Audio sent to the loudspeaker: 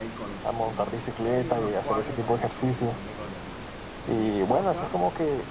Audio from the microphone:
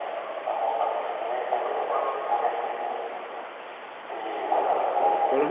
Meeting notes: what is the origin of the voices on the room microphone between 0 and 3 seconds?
echo only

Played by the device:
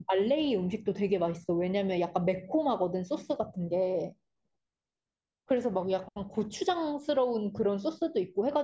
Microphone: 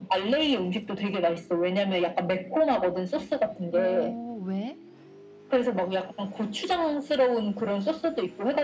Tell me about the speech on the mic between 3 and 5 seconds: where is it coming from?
both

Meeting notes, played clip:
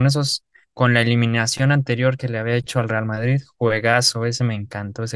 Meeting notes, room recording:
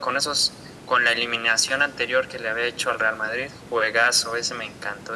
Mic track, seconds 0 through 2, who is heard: echo only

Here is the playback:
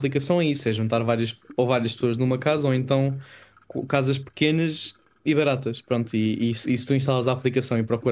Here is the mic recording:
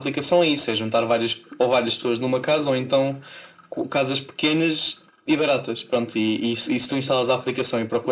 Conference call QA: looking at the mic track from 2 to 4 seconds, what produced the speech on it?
echo only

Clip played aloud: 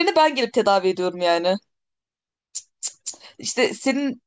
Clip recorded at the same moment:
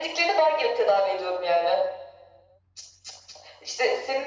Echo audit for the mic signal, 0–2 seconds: echo only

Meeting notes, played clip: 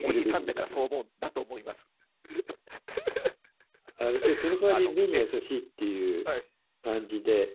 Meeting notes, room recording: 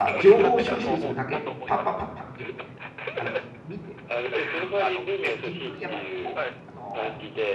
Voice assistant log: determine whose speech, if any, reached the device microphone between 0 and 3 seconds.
both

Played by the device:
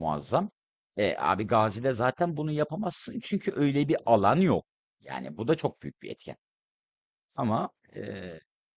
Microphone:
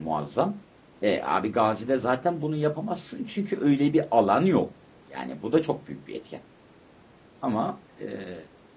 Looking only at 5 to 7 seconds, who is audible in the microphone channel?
echo only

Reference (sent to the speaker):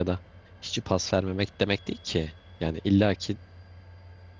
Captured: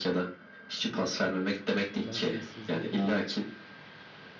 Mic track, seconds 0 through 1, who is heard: echo only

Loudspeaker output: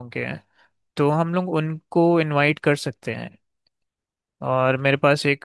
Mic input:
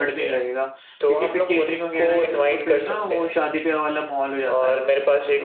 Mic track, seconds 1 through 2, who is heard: both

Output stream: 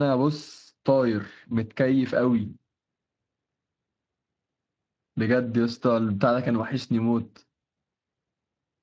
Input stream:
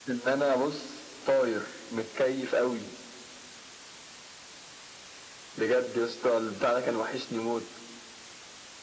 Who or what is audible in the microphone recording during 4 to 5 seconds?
neither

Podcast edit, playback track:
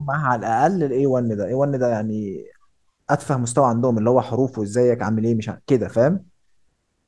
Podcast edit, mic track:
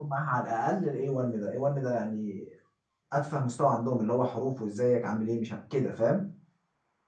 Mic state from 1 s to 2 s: echo only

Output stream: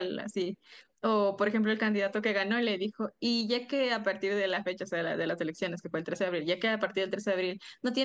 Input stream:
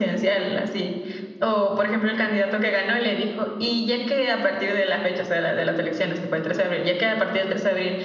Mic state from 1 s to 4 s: echo only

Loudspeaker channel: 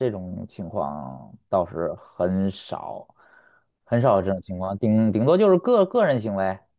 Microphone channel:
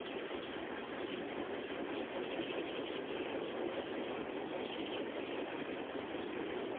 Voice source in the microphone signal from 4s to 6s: neither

